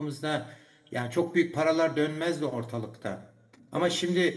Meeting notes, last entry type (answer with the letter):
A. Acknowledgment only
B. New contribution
A